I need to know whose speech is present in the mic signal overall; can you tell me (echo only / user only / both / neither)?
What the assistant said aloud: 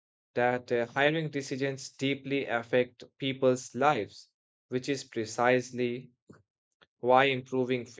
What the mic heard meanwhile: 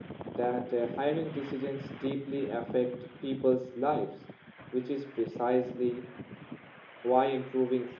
echo only